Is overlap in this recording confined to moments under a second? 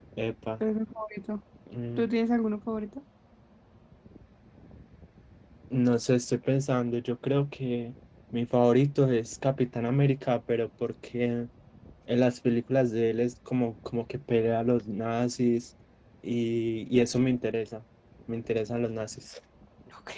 Yes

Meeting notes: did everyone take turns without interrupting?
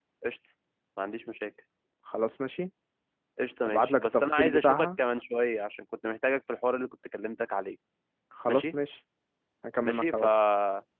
No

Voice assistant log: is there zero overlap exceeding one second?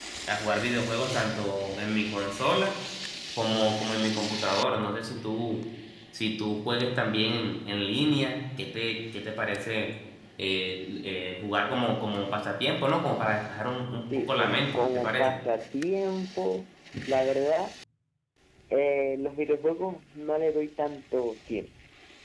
No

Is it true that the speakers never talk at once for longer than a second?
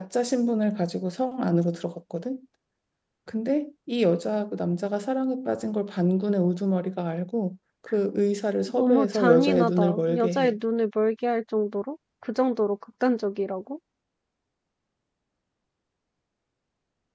No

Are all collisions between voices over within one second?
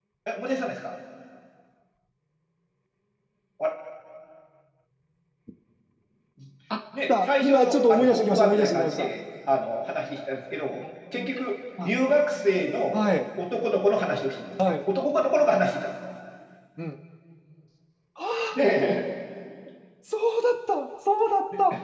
No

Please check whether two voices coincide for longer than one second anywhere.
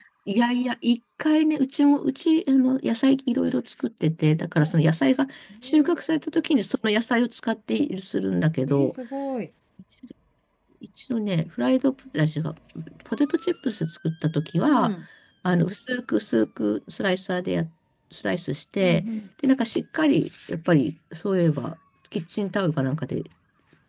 No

